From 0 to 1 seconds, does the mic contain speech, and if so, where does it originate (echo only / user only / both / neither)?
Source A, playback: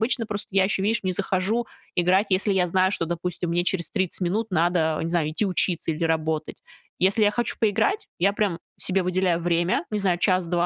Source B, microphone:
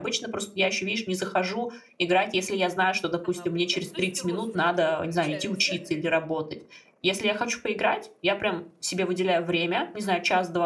echo only